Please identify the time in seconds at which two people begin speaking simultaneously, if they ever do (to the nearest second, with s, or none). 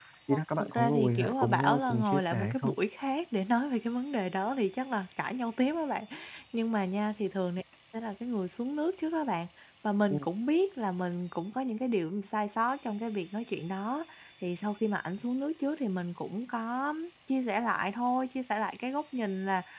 1 s